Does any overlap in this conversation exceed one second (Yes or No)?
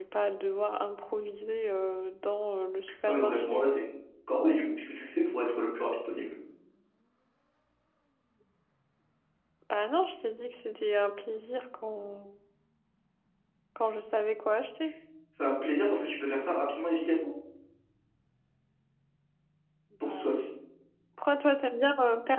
No